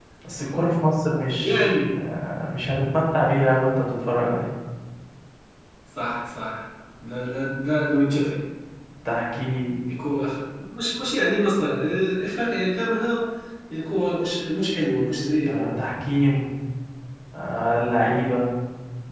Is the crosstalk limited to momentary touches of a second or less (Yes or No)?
Yes